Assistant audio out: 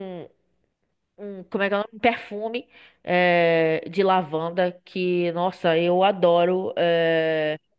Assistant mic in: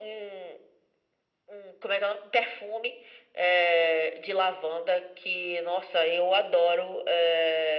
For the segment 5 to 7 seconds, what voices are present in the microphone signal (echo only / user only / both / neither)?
echo only